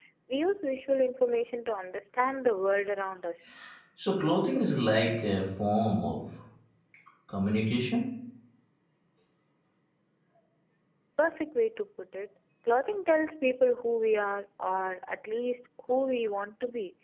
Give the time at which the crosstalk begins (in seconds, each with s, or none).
none